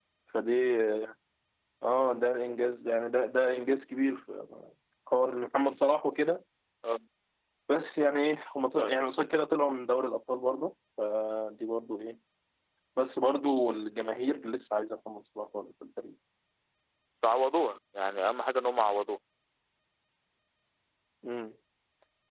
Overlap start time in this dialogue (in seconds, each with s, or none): none